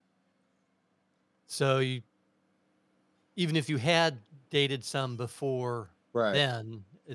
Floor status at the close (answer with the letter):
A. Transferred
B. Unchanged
B